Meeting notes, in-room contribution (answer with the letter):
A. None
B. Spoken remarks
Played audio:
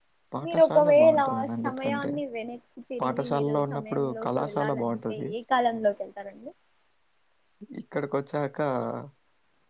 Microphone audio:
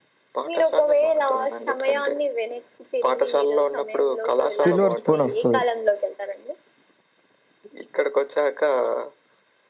B